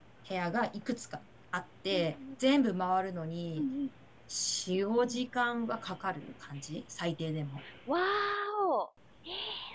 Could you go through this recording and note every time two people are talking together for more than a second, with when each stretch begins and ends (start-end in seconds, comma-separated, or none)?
none